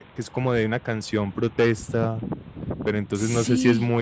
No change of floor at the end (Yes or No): Yes